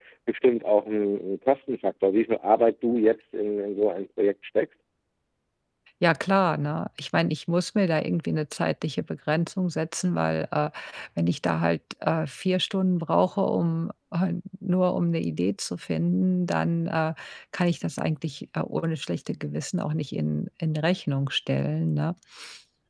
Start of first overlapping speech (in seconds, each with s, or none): none